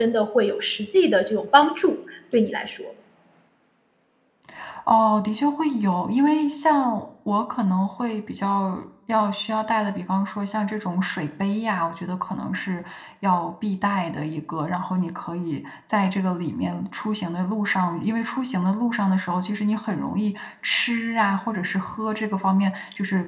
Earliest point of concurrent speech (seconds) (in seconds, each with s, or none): none